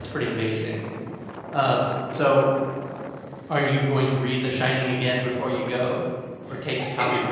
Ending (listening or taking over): taking over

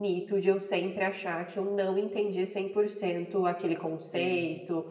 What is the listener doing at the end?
listening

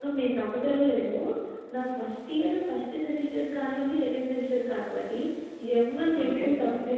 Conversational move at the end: listening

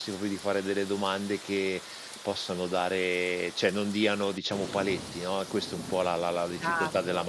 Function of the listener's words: taking over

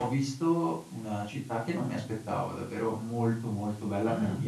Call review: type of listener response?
listening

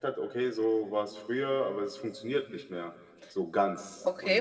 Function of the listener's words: taking over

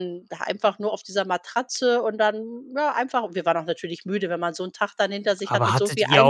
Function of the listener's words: taking over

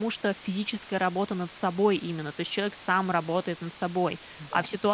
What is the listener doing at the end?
listening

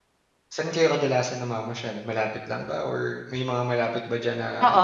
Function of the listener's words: taking over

